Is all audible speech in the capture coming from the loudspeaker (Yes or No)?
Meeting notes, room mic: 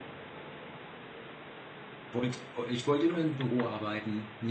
No